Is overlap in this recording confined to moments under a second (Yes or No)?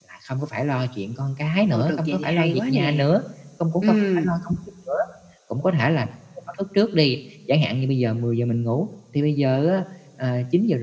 No